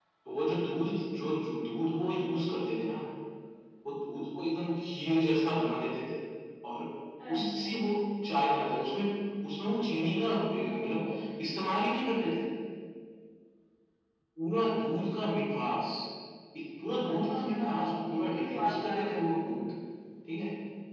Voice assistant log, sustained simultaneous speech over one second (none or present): present